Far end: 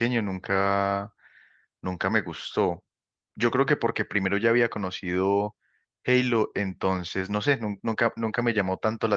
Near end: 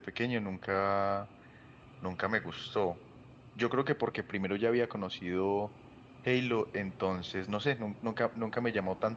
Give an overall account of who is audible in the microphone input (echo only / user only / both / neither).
echo only